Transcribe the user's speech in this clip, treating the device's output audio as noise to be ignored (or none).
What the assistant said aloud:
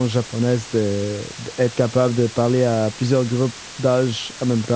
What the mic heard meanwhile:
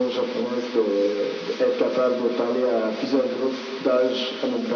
none